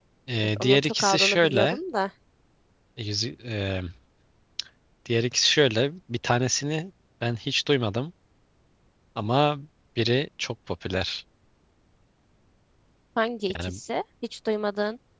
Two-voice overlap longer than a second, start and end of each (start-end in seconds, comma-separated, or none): 0.6-1.8